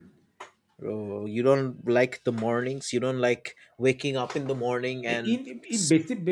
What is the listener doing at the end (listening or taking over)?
taking over